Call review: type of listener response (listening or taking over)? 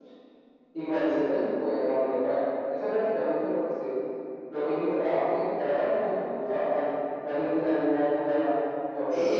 taking over